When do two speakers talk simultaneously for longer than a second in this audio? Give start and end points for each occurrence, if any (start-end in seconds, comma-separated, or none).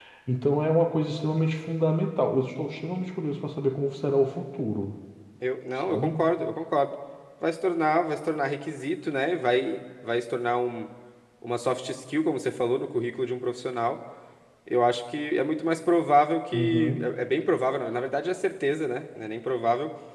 none